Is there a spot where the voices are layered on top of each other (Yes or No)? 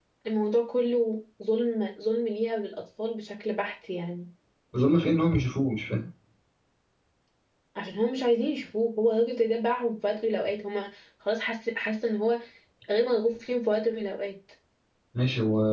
No